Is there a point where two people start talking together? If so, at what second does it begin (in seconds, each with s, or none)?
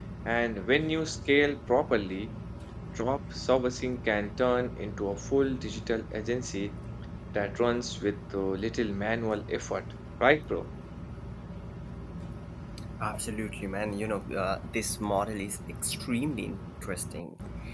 none